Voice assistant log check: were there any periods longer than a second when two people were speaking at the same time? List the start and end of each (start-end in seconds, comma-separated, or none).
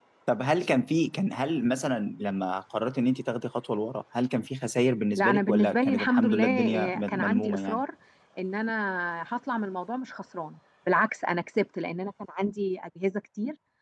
5.2-7.8